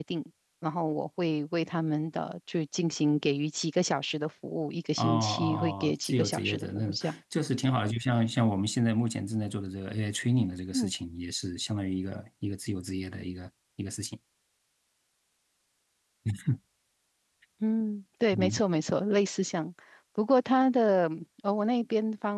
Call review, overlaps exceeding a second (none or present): present